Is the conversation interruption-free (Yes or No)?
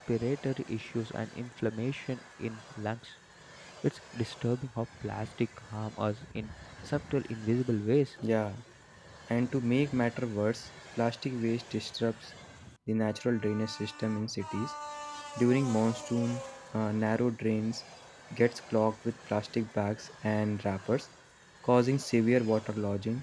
Yes